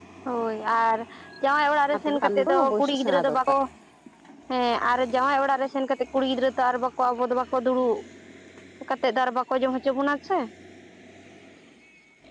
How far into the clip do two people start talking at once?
1.9 s

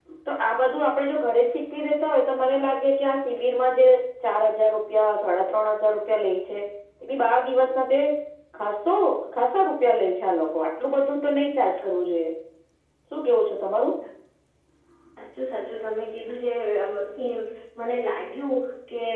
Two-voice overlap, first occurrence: none

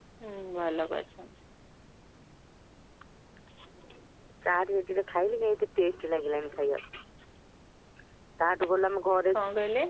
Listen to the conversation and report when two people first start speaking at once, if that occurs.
none

